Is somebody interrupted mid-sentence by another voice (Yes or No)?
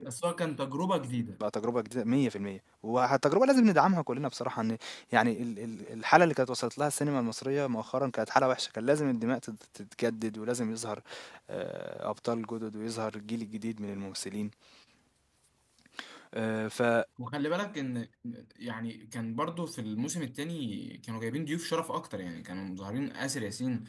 No